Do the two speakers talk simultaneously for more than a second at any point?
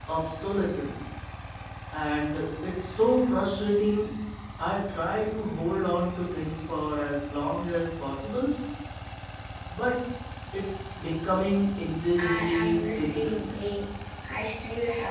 Yes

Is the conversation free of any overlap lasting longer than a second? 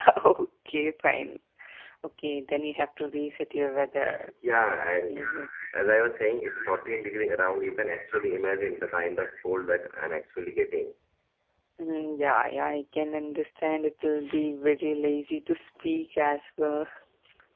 Yes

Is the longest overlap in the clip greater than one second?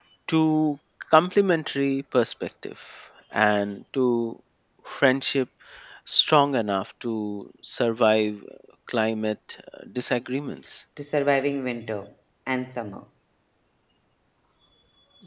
No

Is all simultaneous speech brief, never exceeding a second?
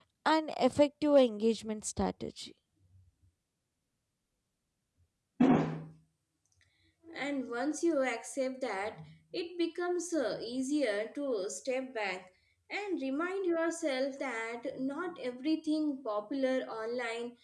Yes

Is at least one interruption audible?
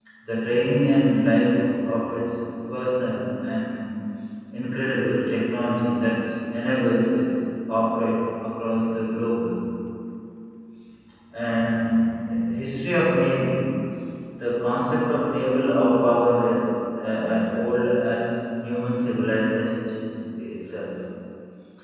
No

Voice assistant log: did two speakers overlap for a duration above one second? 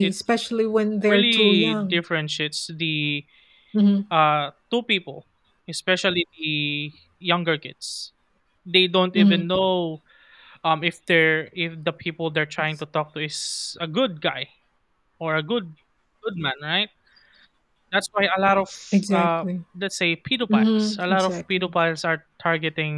Yes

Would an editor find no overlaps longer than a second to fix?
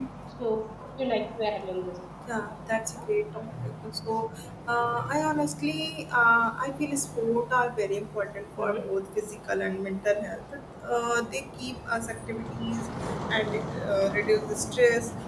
Yes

